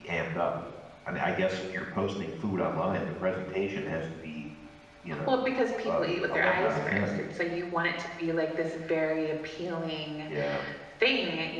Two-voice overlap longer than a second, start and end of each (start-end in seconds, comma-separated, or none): 5.8-7.1